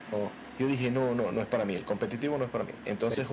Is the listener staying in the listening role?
Yes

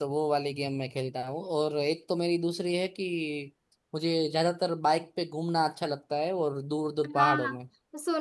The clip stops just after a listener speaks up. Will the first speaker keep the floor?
No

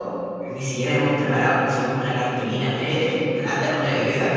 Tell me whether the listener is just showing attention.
Yes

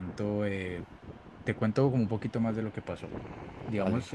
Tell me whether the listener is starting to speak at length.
No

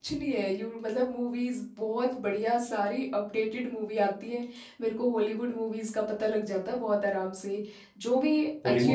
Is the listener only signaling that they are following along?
No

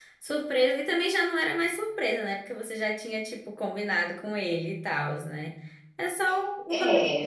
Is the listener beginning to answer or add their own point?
Yes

